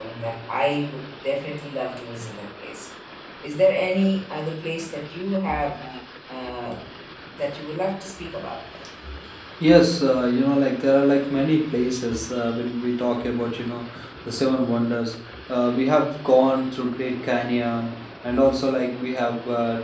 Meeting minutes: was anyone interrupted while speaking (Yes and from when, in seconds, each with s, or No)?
No